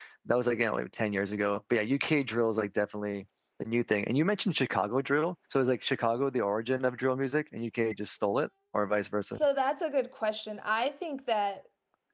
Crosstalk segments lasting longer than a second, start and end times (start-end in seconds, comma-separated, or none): none